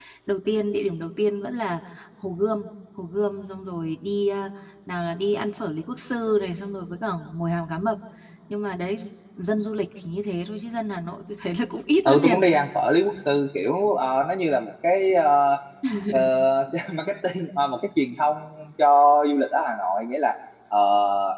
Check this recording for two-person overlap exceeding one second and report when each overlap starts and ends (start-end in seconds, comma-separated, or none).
none